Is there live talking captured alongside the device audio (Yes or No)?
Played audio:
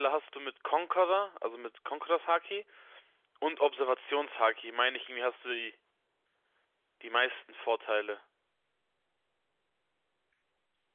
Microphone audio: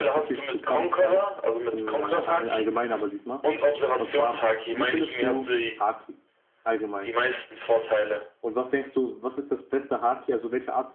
Yes